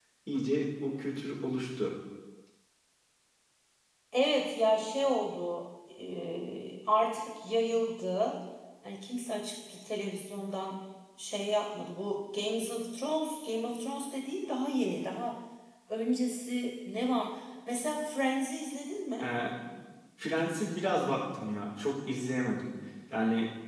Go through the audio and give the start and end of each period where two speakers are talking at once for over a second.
none

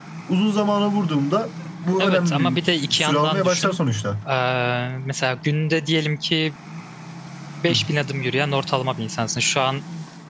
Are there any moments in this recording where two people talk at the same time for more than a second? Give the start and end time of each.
2.0-3.8

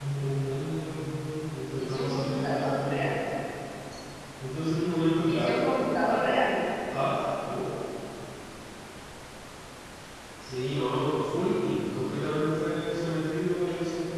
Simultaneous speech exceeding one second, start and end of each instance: 1.8-3.1

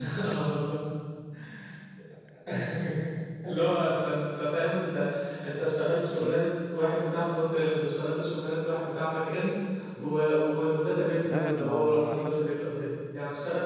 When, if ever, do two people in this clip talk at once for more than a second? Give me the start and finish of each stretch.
11.2-12.5

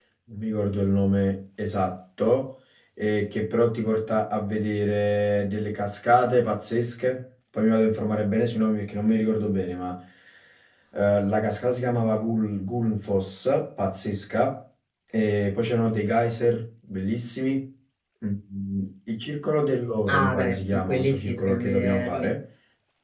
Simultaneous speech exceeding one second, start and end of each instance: 20.1-22.3

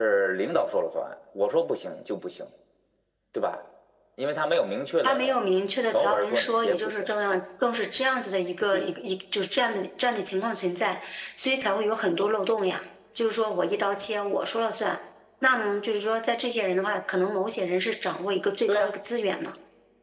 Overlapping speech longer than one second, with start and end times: 5.8-7.1

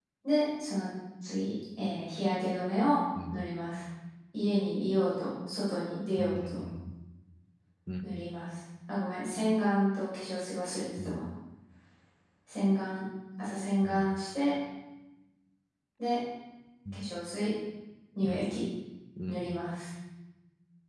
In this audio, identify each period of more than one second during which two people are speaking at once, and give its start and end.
none

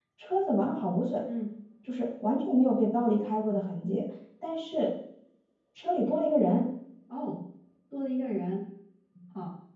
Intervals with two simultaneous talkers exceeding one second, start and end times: none

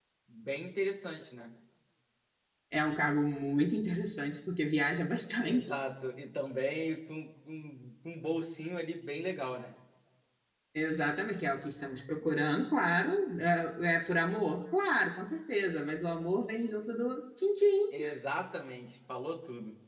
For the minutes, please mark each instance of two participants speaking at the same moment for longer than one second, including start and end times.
none

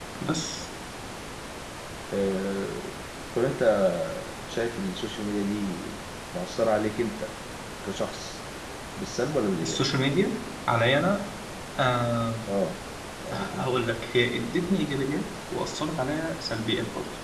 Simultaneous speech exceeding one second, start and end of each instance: none

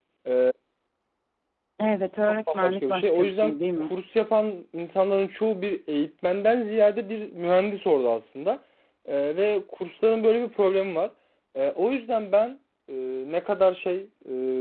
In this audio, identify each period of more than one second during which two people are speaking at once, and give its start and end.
2.5-3.9

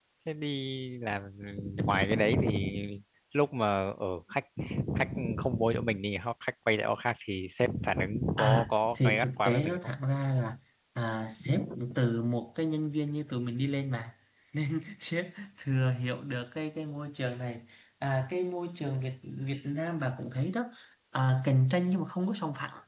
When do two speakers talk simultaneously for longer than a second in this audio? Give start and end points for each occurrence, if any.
8.4-9.8

